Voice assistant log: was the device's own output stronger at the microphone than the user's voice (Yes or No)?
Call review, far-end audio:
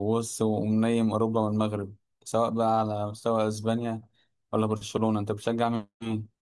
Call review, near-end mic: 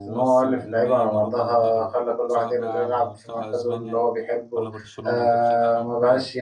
No